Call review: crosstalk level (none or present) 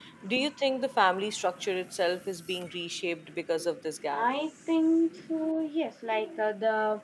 none